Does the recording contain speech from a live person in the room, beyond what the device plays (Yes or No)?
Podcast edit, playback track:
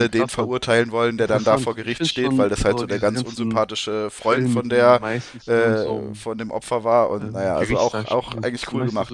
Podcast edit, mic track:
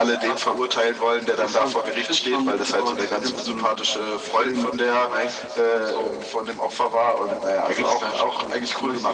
No